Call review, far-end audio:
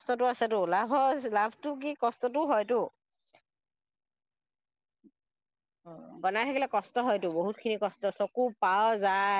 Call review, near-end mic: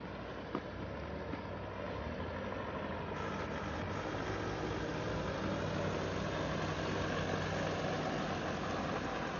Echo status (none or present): none